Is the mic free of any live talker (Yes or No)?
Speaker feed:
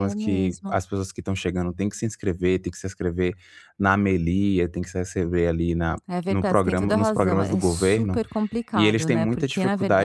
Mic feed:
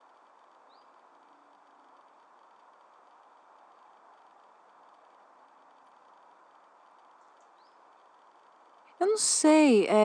No